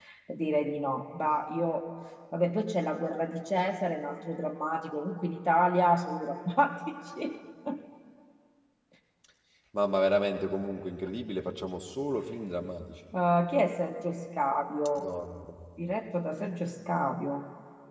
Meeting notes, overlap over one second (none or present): none